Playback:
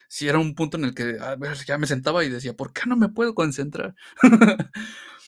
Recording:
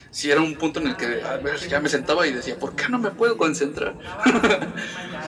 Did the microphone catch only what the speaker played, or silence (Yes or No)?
No